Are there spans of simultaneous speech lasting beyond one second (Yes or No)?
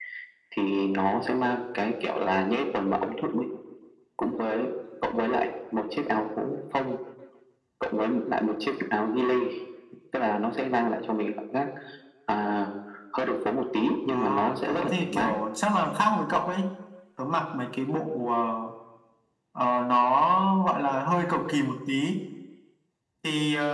Yes